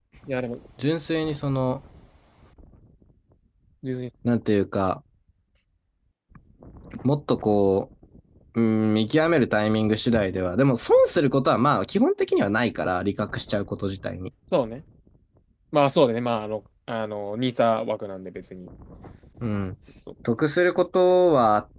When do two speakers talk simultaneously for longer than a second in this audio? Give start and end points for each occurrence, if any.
none

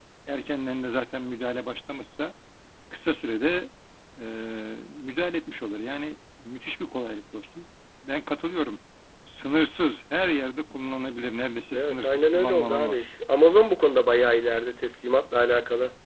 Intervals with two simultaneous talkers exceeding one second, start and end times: 11.7-13.0

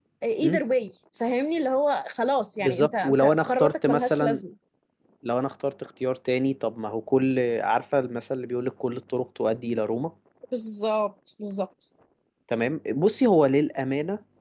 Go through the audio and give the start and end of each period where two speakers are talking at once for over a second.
2.6-4.4

